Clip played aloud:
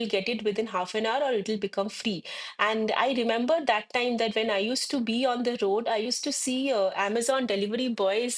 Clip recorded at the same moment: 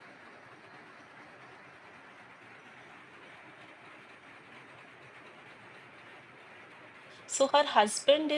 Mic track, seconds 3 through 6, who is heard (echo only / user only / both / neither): neither